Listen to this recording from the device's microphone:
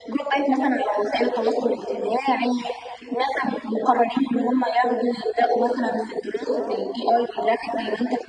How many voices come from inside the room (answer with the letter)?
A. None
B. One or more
A